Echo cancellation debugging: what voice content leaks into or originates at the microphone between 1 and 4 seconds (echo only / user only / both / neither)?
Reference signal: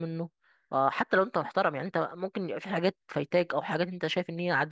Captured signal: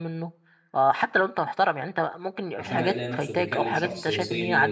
both